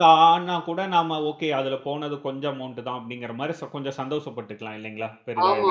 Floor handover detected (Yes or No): Yes